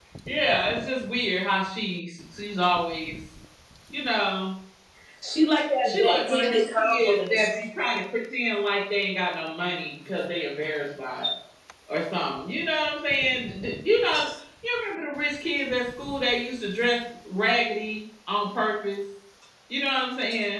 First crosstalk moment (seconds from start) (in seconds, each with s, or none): 5.8 s